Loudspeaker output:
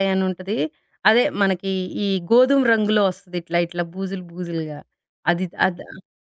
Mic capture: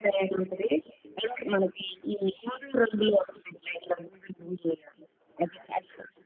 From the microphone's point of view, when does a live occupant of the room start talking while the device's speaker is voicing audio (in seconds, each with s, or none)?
none